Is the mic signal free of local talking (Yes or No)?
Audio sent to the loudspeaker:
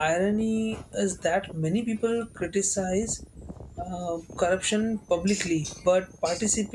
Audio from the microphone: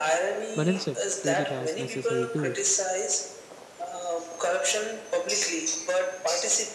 No